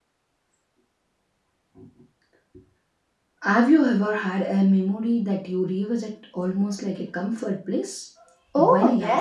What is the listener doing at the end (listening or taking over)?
taking over